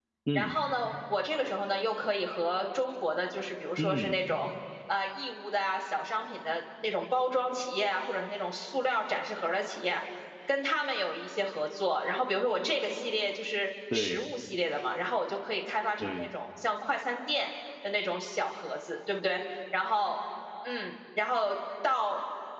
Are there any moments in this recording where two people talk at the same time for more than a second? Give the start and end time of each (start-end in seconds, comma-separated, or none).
none